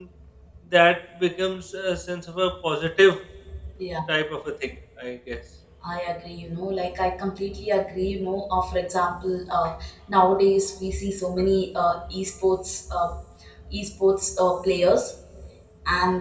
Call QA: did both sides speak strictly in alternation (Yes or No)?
Yes